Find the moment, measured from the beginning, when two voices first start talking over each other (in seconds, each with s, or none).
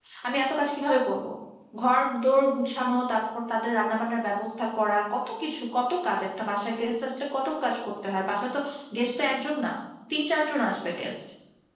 none